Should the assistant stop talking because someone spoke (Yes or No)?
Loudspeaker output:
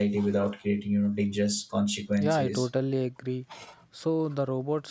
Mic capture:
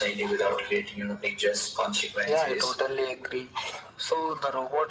No